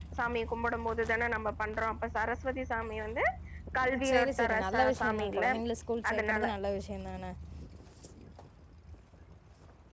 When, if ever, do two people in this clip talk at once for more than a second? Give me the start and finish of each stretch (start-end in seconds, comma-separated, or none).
4.1-5.5